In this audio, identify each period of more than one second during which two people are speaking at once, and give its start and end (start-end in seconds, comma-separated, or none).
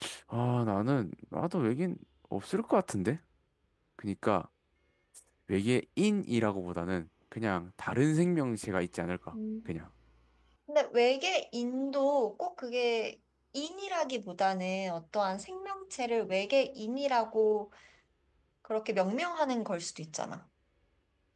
none